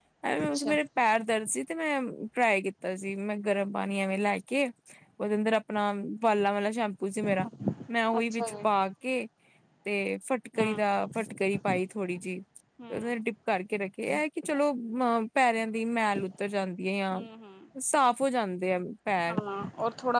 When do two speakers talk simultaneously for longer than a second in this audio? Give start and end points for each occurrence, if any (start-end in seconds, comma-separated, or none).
none